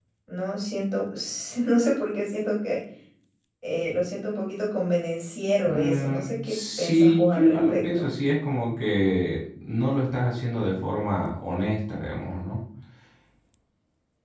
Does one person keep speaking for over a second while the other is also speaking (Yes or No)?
Yes